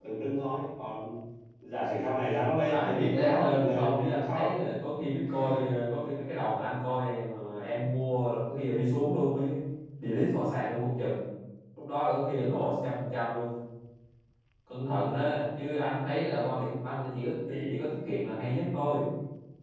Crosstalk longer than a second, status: present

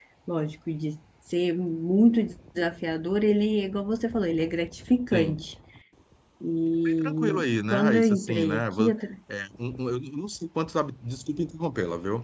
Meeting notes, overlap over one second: present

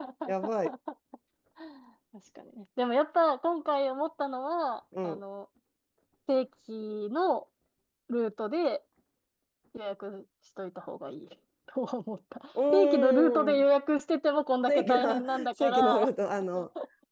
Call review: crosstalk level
present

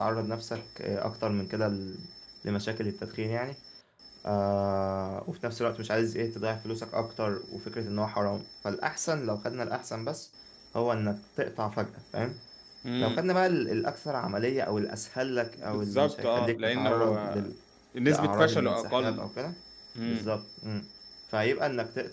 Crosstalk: present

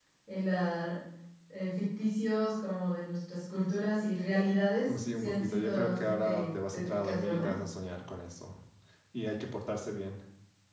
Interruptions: present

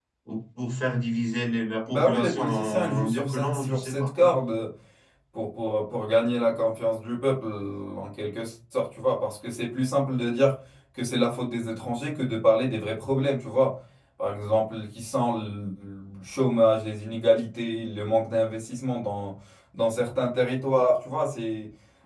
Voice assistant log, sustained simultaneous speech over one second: present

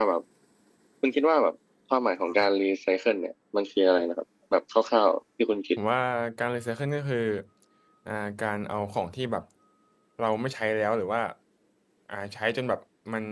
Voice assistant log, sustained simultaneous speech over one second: none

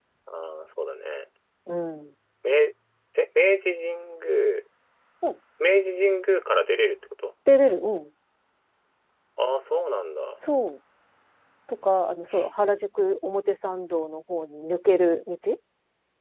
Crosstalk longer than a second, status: none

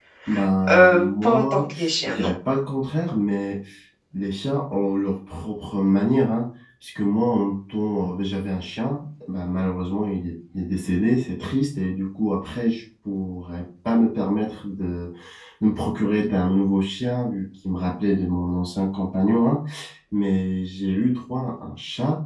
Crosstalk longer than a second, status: present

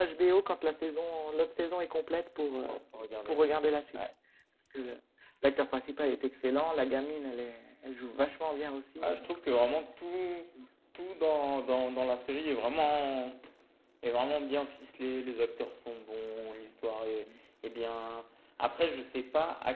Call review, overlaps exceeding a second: none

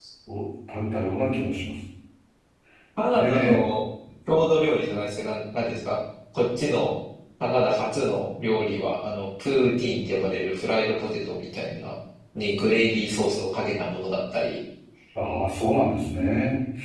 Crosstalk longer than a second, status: none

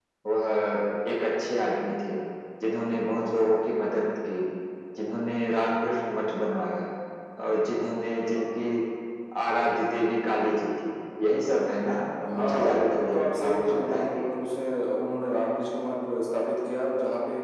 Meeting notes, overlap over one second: present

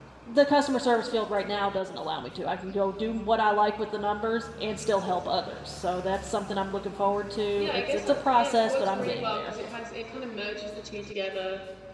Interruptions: present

